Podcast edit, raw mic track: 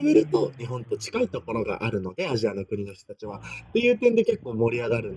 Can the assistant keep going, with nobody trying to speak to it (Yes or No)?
Yes